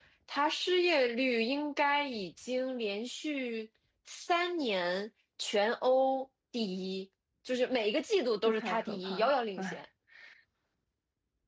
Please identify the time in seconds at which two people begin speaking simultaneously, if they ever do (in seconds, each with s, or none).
8.4 s